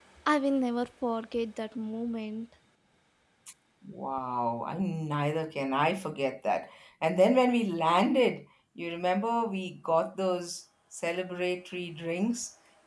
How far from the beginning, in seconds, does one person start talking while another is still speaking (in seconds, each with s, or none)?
none